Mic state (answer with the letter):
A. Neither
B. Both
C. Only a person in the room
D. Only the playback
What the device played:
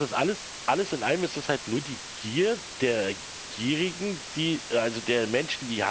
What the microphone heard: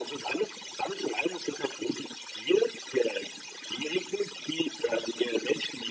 D